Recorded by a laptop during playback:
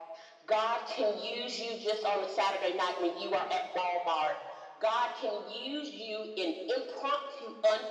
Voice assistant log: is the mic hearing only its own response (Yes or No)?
Yes